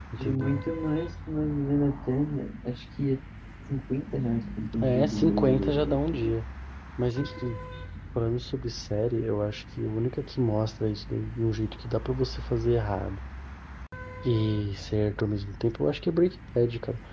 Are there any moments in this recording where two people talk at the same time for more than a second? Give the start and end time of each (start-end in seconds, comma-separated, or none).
4.8-6.3